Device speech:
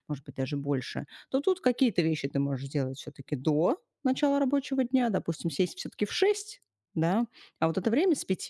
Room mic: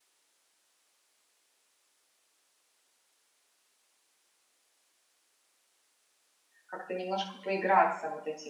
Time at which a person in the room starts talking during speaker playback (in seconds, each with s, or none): 6.7 s